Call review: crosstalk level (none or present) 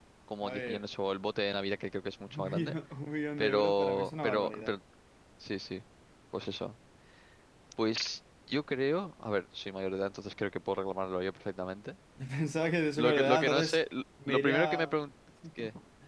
present